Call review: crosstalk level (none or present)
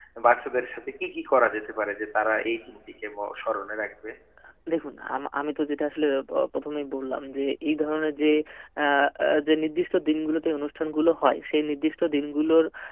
none